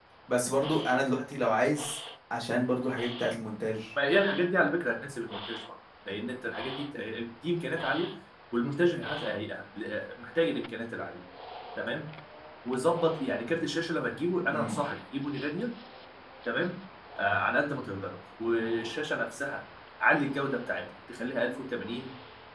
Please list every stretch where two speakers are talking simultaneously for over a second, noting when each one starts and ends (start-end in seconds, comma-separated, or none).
none